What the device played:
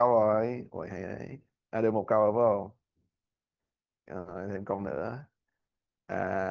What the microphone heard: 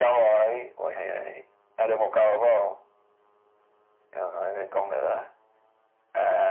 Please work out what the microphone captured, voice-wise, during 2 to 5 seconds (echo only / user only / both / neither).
echo only